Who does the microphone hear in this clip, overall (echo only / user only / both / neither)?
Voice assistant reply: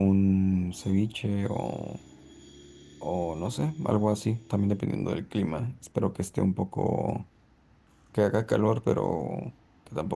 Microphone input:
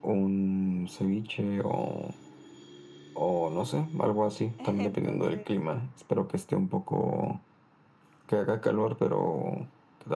both